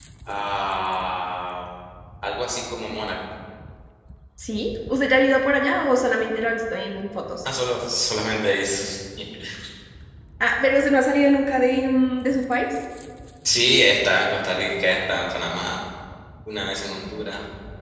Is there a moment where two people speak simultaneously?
No

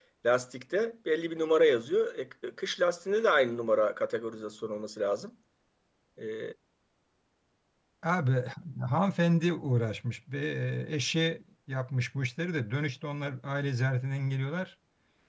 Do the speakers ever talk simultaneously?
No

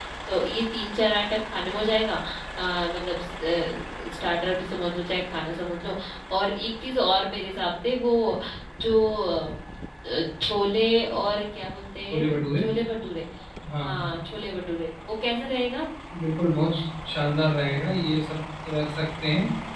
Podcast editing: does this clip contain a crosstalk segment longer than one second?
No

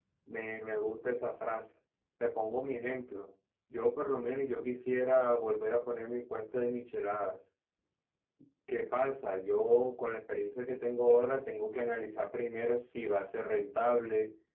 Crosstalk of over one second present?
No

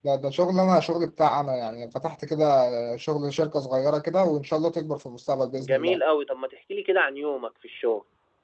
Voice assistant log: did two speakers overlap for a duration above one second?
No

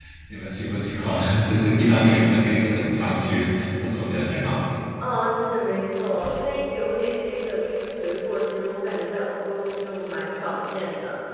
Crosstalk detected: No

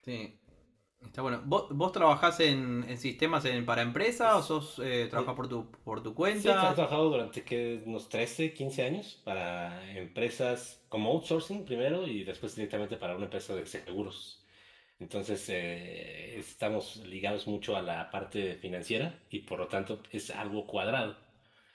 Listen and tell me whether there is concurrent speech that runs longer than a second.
No

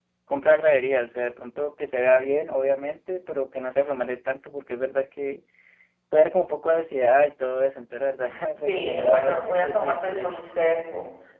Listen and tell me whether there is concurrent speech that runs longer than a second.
Yes, from 8.7 s

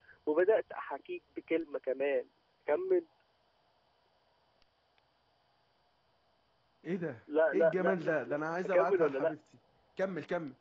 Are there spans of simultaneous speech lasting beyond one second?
Yes, from 7.5 s

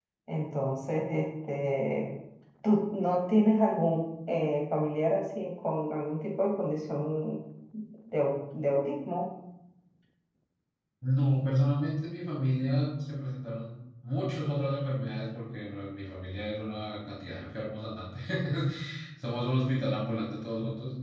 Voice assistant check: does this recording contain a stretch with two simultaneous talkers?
No

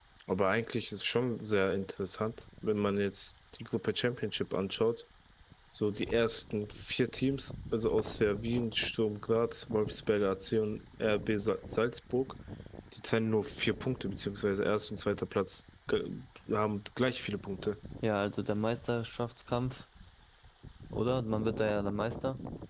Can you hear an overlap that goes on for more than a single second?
No

